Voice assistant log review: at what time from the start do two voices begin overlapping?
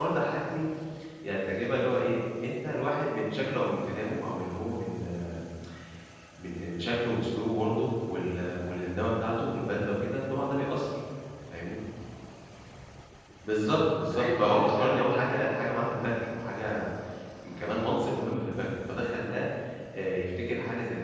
14.1 s

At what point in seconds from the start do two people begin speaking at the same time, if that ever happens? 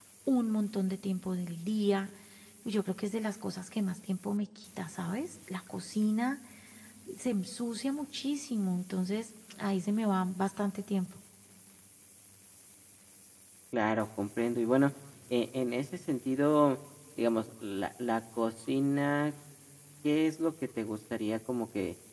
none

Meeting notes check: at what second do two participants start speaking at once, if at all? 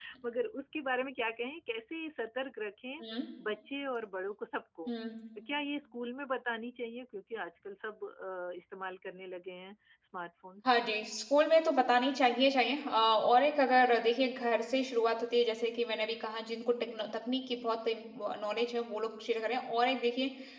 none

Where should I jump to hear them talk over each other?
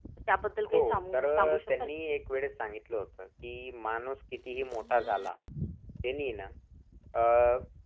0.7 s

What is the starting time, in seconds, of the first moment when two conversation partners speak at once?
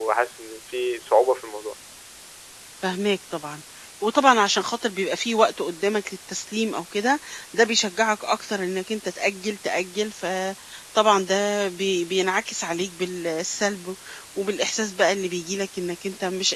none

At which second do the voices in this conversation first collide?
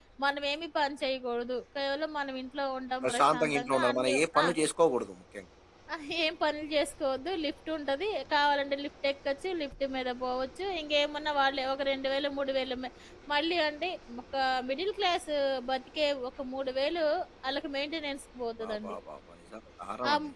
3.0 s

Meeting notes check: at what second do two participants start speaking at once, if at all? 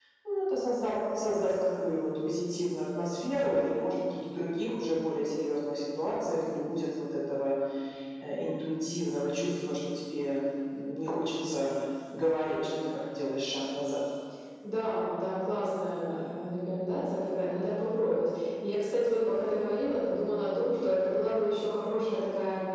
none

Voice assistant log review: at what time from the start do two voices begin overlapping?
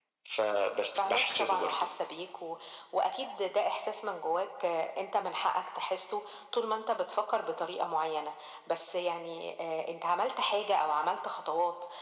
0.5 s

